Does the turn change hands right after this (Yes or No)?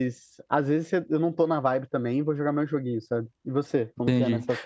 Yes